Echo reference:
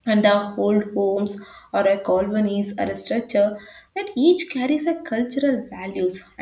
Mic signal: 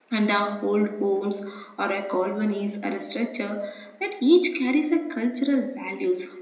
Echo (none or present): present